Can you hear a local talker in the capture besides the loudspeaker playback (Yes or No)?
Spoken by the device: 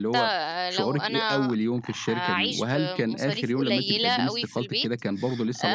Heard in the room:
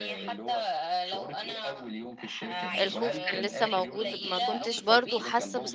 Yes